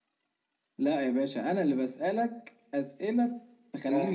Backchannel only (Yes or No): No